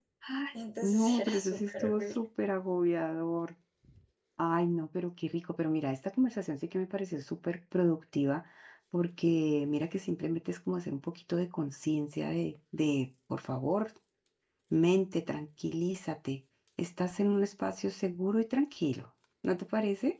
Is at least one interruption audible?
Yes, from 0.8 s

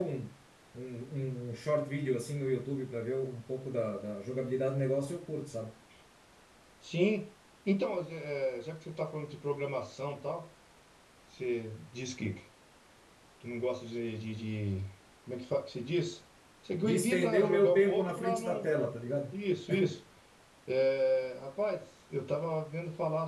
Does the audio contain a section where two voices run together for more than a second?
Yes, from 16.8 s

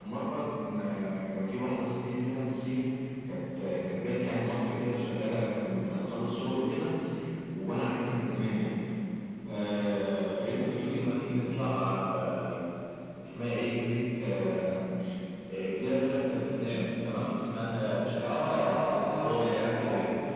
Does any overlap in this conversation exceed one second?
Yes, from 18.2 s

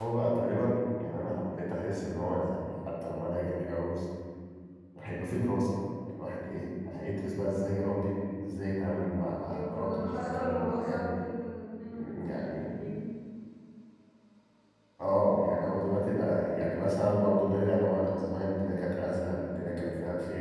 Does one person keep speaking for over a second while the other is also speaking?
Yes, from 9.4 s

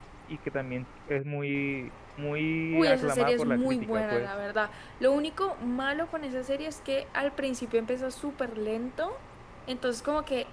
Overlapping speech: Yes, from 2.7 s

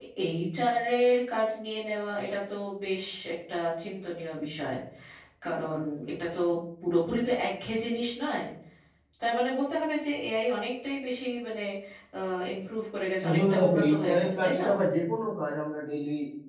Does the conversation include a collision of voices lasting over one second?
Yes, from 13.3 s

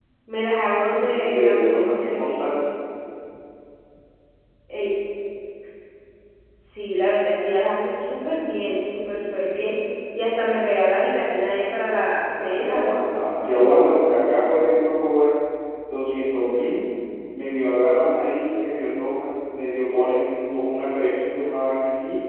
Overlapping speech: Yes, from 0.8 s

